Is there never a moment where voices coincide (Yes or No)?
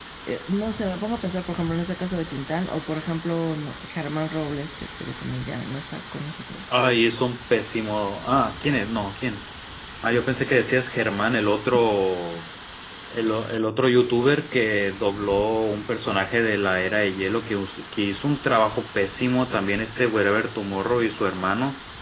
Yes